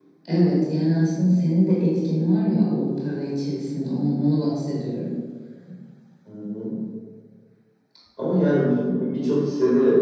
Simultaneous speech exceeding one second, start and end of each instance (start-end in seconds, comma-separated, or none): none